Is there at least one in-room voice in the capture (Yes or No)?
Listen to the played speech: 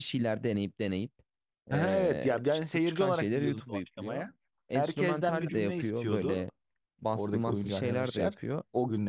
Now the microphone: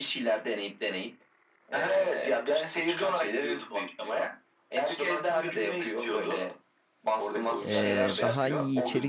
Yes